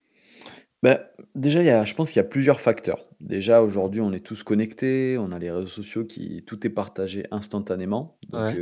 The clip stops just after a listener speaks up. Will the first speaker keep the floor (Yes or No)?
Yes